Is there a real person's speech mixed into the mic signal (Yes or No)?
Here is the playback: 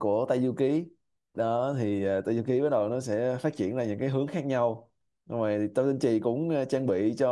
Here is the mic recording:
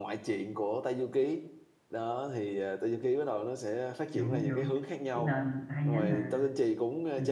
Yes